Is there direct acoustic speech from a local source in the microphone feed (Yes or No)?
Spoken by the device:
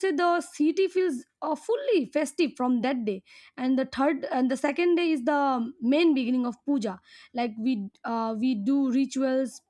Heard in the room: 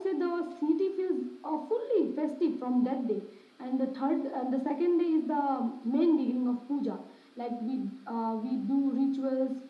No